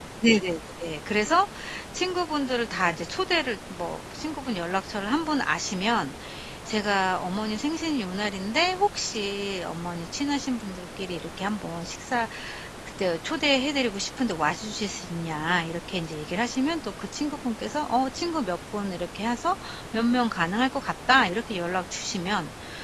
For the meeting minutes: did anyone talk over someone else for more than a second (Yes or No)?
No